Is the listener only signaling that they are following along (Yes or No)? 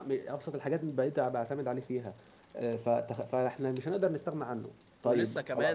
No